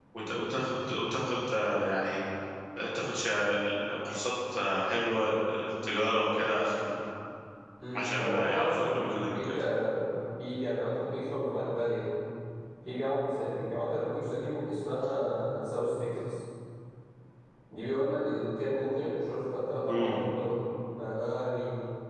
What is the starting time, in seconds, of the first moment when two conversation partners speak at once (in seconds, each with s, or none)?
8.0 s